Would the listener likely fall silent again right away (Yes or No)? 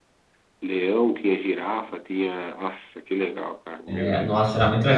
No